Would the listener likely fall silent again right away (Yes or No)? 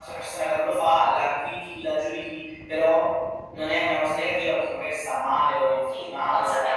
No